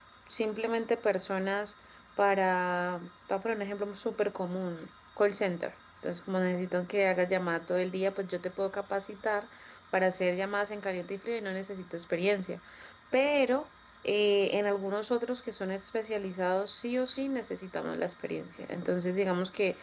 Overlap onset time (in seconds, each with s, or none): none